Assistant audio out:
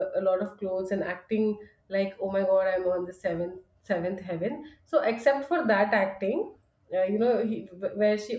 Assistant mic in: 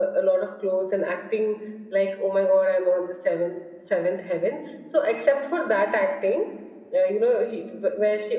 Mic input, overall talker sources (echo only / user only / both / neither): echo only